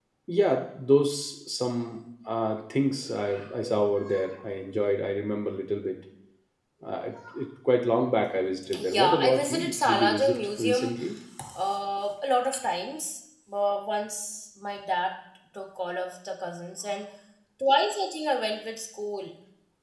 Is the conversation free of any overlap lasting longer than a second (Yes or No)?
No